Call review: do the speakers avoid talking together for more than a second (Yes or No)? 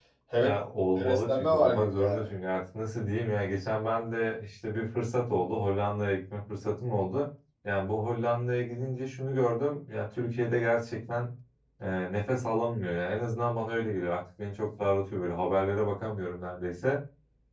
No